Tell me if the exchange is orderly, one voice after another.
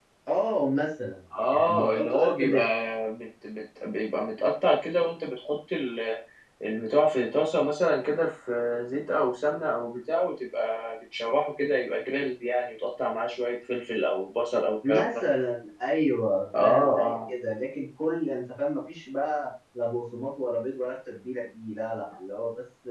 No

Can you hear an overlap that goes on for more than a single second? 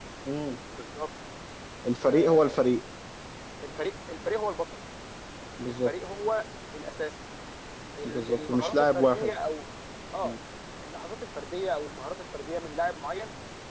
Yes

